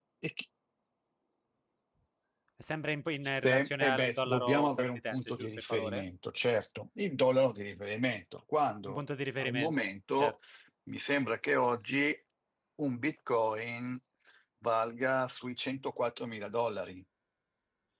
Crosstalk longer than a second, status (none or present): present